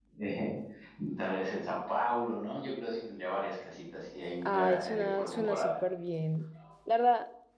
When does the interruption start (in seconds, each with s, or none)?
4.4 s